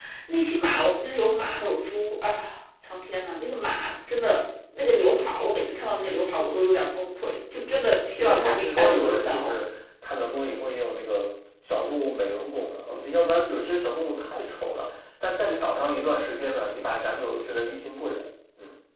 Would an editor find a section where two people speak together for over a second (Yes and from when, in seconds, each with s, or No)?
Yes, from 8.2 s